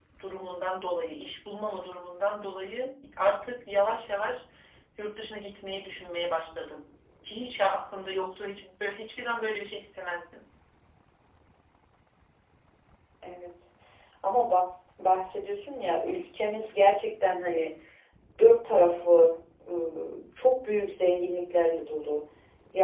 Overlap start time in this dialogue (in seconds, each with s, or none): none